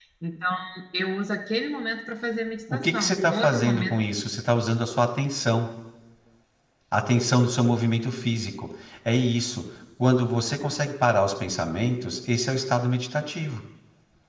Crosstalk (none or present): present